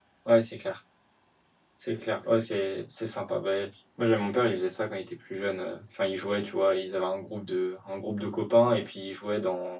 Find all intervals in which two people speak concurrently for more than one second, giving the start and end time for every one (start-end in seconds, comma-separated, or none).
none